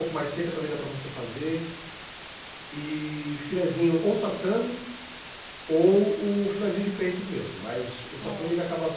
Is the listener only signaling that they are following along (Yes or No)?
Yes